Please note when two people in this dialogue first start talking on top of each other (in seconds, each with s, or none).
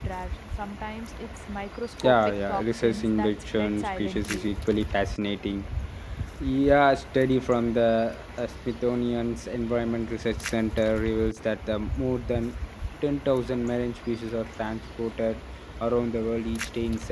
2.0 s